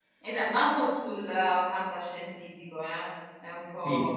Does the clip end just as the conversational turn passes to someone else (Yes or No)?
Yes